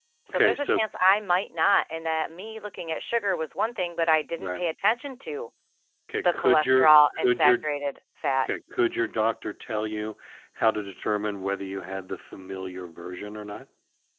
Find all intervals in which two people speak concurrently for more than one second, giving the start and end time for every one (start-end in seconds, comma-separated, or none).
6.2-7.7